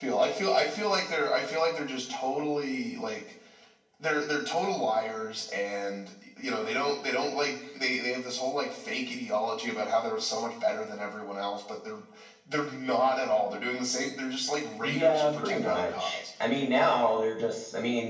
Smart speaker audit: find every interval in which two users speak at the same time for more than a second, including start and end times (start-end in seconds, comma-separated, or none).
14.8-16.2